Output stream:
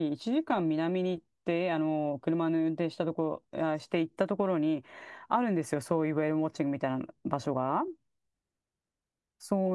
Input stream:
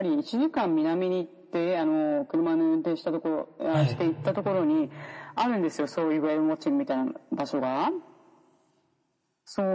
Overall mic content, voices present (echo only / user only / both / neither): both